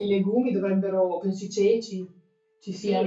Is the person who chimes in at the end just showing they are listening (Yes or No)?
No